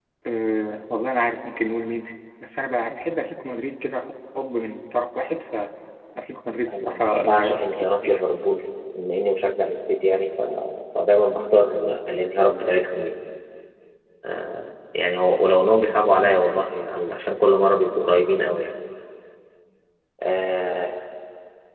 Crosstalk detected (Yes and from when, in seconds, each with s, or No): Yes, from 6.7 s